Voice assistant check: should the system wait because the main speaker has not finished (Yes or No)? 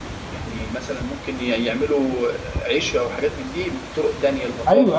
No